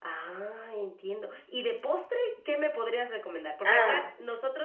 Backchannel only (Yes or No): Yes